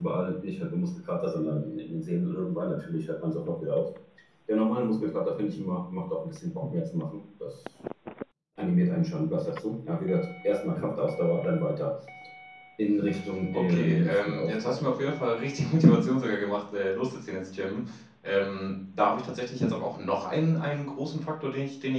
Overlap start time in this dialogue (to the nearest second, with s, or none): 14 s